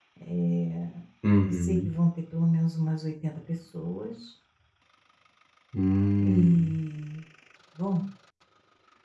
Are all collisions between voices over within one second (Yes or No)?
Yes